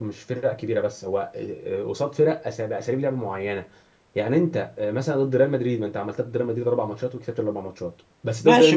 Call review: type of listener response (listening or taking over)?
taking over